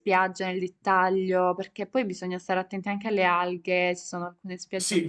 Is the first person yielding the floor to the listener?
Yes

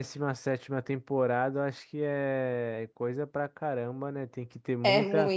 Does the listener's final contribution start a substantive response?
No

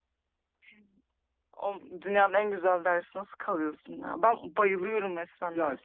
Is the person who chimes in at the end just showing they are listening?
No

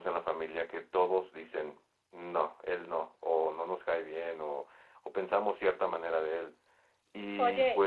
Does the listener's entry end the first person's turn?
Yes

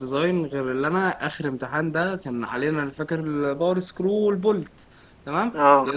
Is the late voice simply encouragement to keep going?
Yes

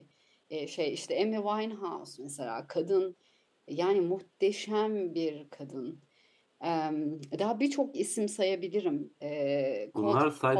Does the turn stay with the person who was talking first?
No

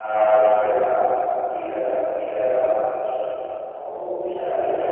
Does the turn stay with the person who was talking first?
No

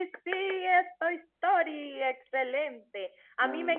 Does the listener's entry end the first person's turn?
No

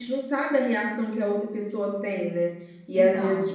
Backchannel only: Yes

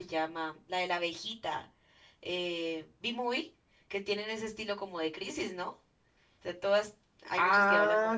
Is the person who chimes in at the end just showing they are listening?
No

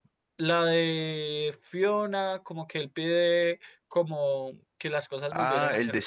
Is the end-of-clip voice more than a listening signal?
Yes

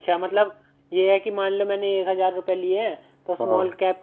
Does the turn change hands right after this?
No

